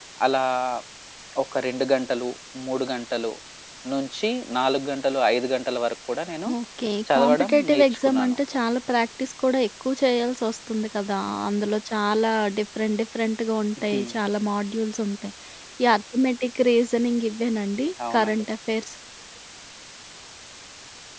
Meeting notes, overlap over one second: present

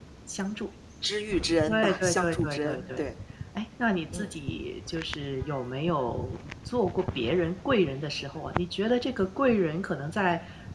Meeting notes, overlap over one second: present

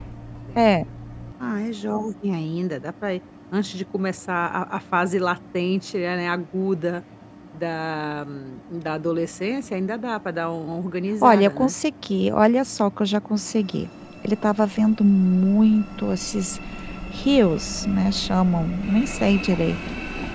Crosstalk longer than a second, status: none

